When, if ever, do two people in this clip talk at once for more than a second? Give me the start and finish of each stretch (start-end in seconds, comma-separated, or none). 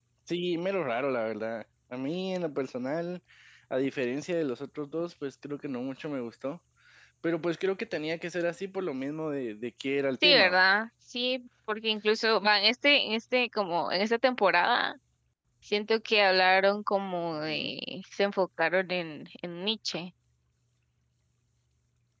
none